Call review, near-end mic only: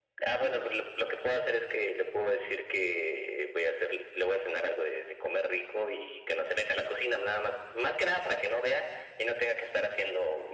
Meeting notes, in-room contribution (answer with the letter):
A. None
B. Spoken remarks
A